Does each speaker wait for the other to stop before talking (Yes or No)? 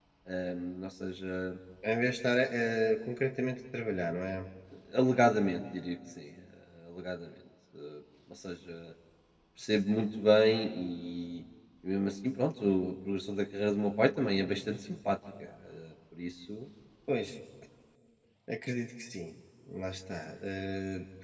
Yes